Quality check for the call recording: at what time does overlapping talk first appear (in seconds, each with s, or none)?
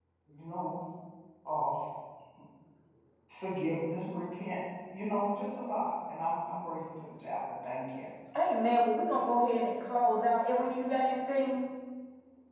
none